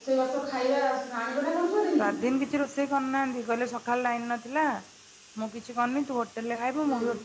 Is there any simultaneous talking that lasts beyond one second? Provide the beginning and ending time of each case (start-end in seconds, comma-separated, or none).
none